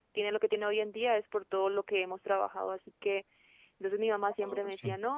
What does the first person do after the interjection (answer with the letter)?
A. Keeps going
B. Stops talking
A